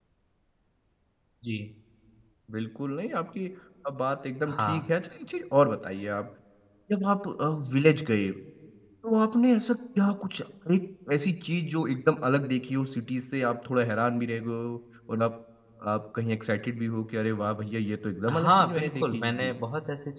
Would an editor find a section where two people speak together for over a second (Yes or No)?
Yes